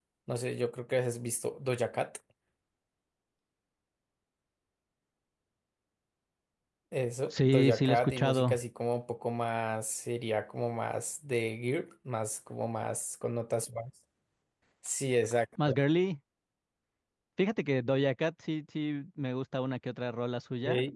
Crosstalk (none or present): present